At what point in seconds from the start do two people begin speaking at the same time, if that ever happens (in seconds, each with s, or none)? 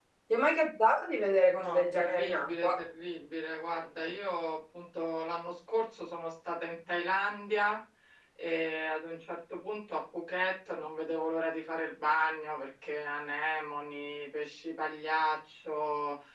1.6 s